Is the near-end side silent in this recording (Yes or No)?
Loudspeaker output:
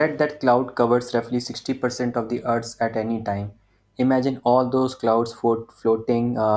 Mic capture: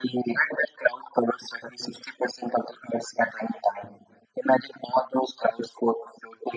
Yes